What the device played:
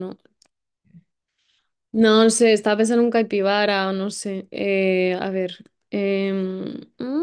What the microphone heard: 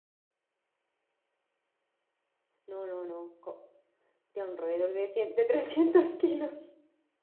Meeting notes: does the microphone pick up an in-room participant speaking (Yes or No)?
Yes